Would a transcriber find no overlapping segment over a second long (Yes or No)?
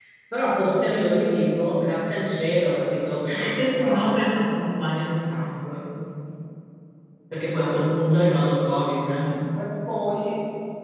Yes